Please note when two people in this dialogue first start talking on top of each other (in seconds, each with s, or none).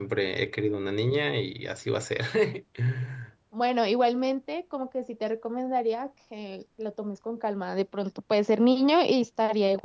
none